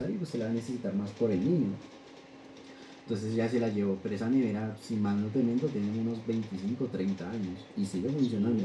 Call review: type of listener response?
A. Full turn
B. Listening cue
A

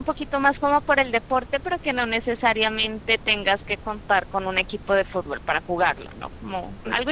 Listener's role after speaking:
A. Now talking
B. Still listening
A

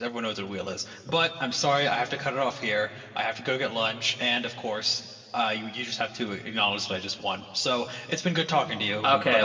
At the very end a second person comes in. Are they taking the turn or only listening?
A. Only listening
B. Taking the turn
B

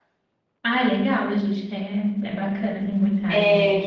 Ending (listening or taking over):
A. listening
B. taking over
B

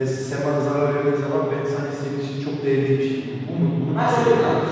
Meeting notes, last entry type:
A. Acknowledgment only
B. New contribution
B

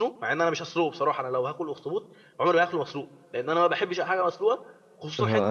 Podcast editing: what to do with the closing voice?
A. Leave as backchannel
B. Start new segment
B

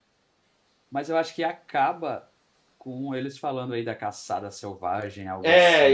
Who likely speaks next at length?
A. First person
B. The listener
B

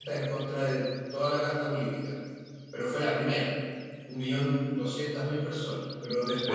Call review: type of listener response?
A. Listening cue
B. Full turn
A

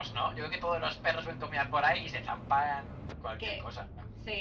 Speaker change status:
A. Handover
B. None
A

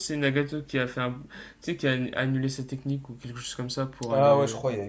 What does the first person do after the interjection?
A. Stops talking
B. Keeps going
A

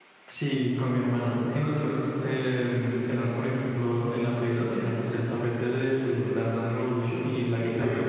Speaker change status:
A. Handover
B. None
A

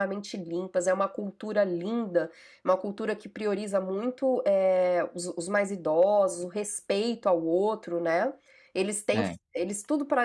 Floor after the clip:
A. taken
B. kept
B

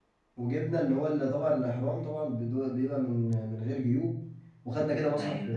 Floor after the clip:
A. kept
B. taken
A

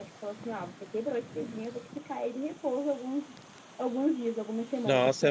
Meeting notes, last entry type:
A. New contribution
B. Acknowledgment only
A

